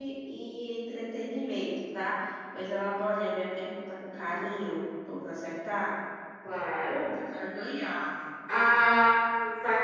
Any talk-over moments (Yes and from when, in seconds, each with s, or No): No